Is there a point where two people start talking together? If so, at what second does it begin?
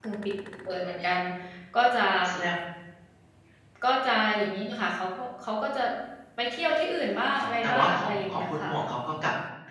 7.4 s

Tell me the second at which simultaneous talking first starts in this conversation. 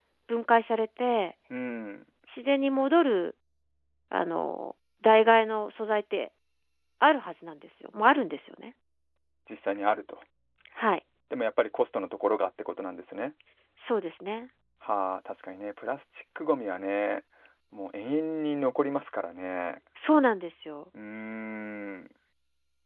none

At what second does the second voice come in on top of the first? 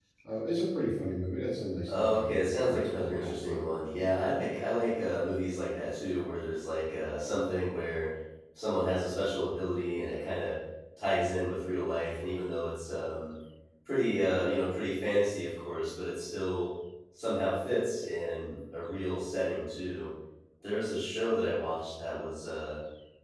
1.9 s

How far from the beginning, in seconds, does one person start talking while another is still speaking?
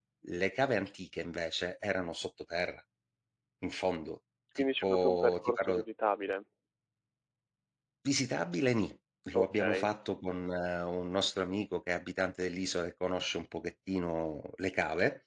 4.6 s

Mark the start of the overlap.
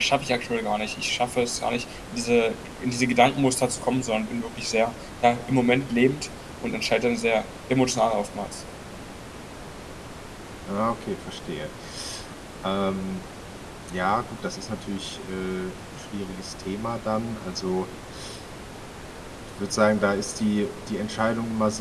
none

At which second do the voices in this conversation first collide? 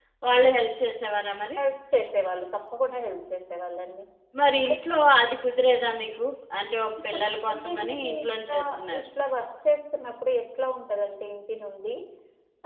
7.1 s

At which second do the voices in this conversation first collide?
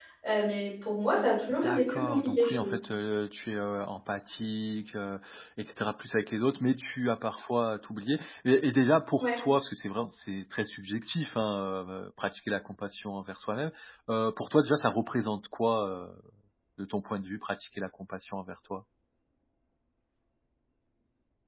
1.5 s

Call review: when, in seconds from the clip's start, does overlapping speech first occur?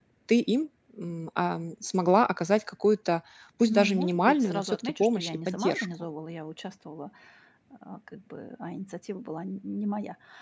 3.7 s

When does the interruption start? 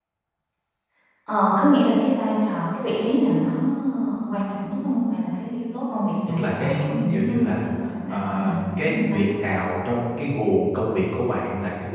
6.3 s

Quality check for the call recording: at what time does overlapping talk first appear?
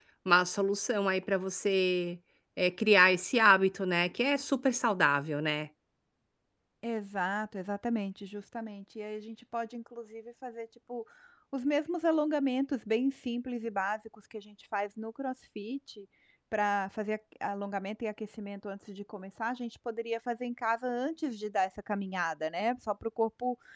none

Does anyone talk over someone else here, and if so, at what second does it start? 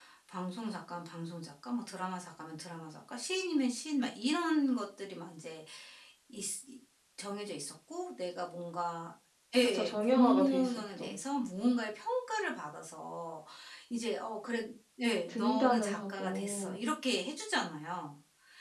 9.6 s

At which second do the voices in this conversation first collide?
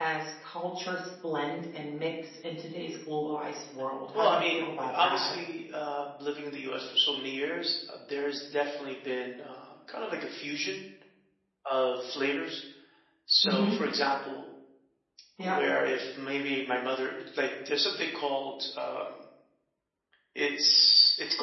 4.1 s

